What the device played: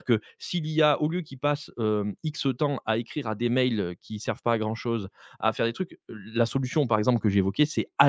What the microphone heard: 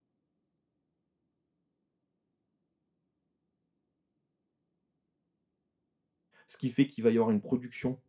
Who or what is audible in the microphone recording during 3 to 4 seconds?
neither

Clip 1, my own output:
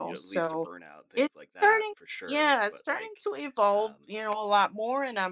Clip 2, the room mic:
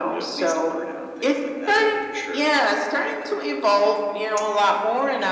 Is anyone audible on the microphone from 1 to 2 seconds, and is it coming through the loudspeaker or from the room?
echo only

